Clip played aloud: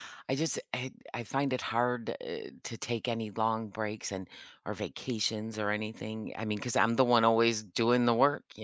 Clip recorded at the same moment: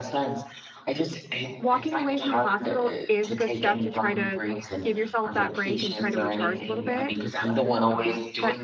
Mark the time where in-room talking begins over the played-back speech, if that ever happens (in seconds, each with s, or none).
1.6 s